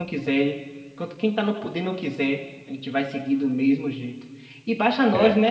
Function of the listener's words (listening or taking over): listening